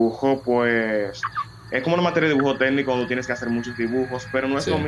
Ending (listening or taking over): listening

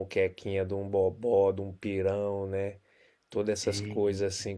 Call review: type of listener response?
listening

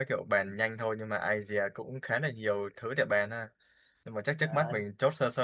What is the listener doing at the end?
listening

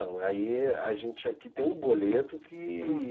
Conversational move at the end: listening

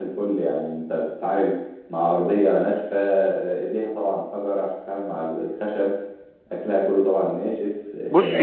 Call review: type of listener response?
taking over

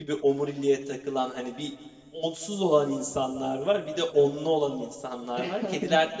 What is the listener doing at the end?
listening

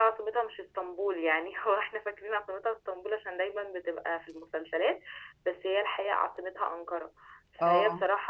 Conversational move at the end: listening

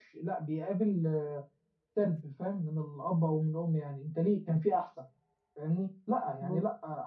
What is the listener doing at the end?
listening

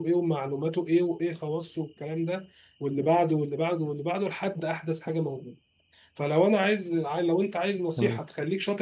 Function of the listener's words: listening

